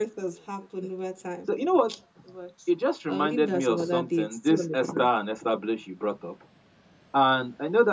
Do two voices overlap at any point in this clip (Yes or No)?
Yes